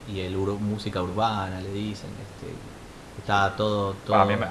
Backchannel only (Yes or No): No